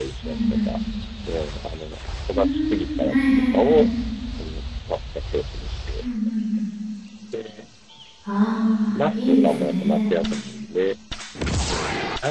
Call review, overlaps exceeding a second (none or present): present